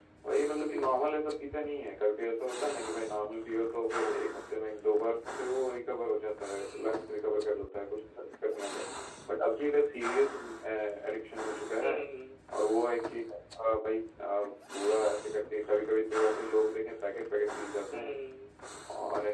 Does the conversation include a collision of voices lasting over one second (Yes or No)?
No